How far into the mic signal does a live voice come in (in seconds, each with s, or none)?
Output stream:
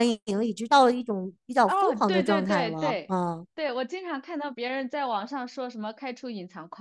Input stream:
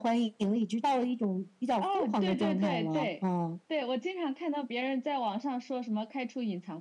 none